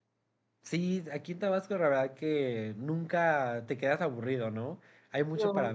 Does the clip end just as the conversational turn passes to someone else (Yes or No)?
No